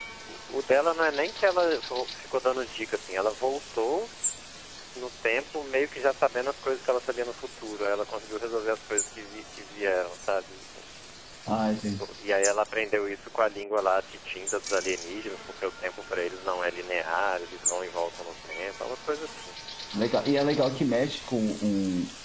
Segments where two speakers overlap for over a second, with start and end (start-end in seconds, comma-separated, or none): none